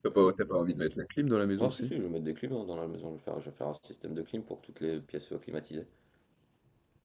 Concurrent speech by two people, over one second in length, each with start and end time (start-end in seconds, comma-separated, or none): none